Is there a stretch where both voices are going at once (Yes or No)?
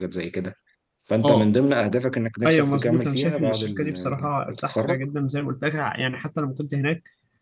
Yes